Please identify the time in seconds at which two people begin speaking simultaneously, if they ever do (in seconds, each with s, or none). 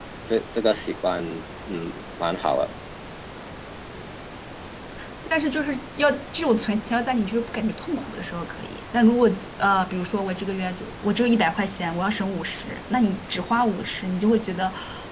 none